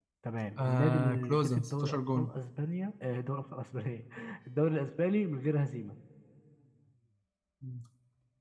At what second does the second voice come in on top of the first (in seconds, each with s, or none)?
0.6 s